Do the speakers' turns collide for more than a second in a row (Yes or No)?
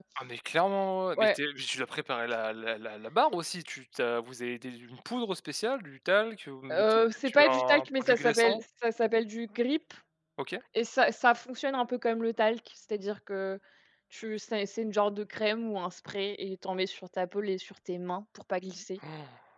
Yes